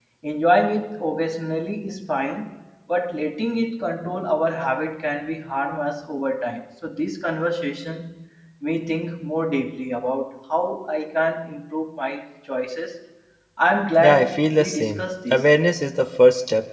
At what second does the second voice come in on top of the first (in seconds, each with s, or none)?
14.0 s